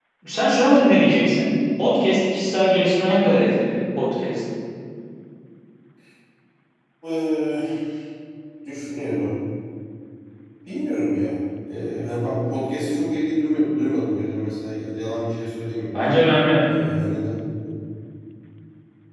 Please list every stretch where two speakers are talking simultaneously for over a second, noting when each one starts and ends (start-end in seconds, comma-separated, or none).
none